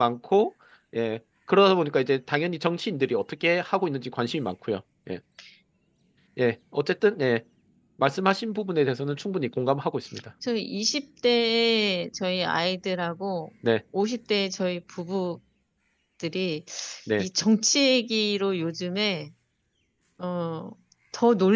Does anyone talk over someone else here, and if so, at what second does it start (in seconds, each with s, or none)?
none